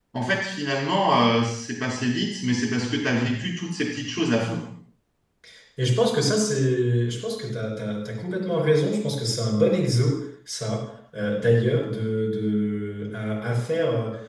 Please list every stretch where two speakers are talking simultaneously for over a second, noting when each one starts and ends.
none

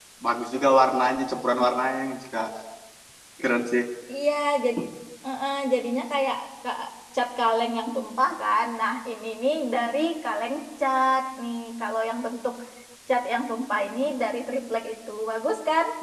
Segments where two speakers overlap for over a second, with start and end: none

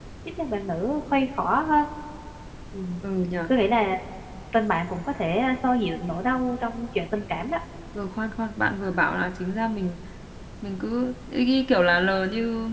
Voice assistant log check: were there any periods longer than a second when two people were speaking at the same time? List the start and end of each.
none

